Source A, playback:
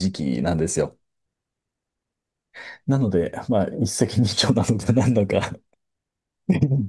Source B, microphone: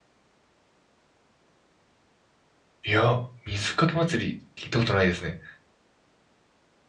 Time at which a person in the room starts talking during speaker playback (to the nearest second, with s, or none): 3 s